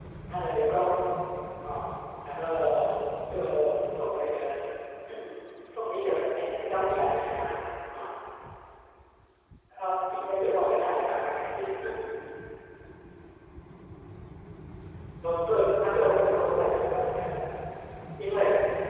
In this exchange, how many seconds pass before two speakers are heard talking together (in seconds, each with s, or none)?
16.1 s